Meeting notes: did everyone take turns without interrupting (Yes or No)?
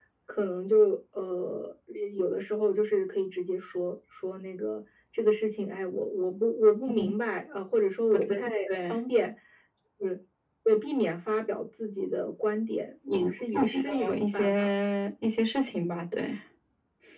No